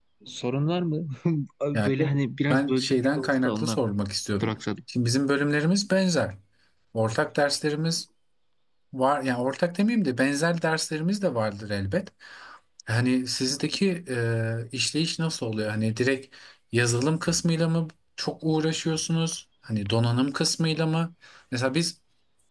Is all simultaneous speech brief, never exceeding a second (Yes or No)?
No